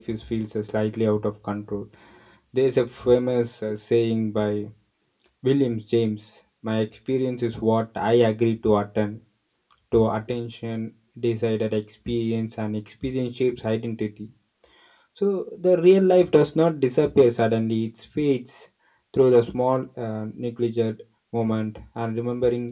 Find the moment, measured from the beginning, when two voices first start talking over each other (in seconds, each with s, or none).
none